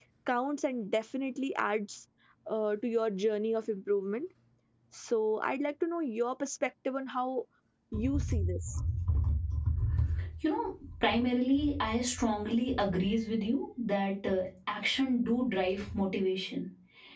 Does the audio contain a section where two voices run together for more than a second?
No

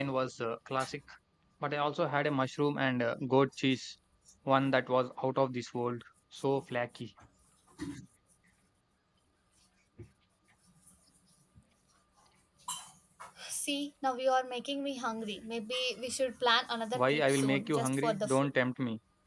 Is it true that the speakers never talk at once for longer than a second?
No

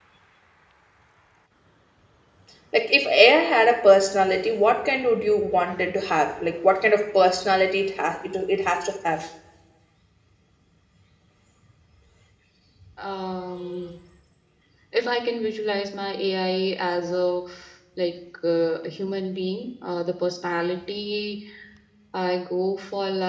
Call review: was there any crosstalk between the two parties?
No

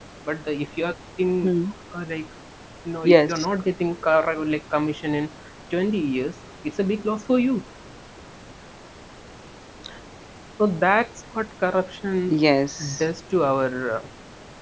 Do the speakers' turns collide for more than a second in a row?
No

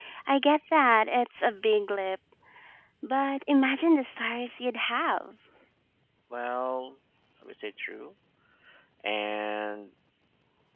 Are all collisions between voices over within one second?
Yes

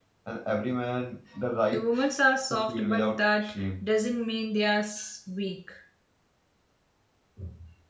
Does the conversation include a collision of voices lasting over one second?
Yes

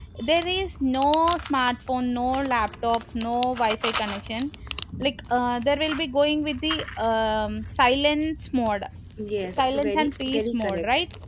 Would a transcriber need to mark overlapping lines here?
Yes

